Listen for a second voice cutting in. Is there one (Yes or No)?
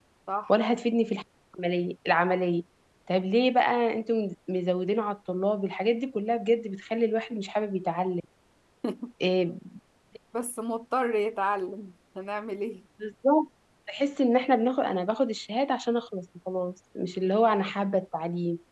No